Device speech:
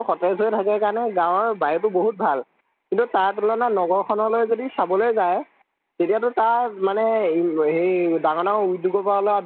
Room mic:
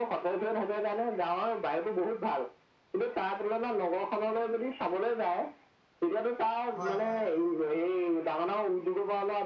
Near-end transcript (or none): হয় হয়